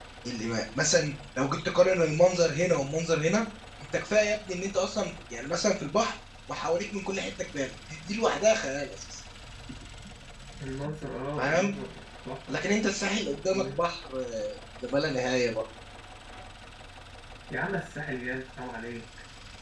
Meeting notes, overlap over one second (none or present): none